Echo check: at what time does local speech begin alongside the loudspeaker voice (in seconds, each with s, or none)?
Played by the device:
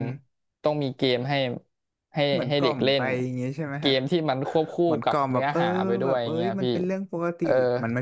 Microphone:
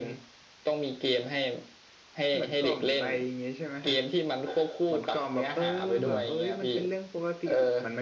6.0 s